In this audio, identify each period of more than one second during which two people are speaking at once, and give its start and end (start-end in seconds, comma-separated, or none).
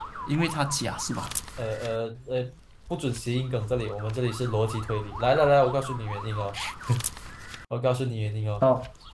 none